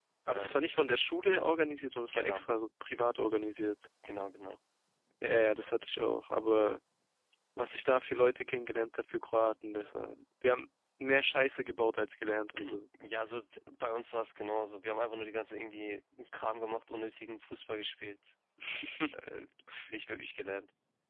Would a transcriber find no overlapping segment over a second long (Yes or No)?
Yes